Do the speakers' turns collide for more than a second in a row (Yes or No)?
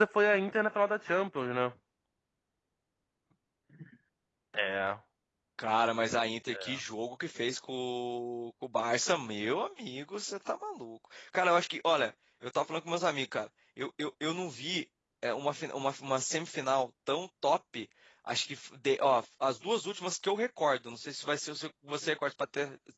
No